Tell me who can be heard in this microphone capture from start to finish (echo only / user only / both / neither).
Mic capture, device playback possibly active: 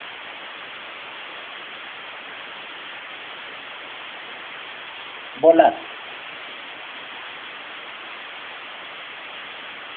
user only